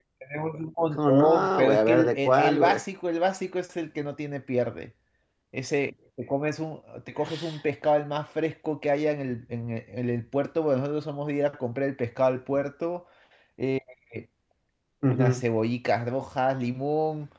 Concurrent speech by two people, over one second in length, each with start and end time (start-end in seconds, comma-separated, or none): 1.0-2.8